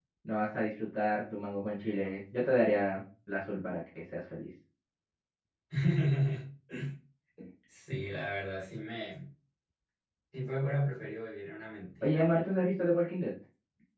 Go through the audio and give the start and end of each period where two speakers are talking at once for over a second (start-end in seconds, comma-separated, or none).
none